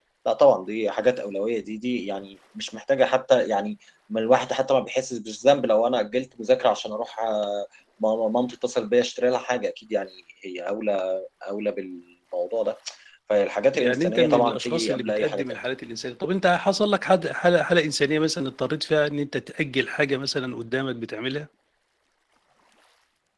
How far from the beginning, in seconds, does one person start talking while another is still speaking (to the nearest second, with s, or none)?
14 s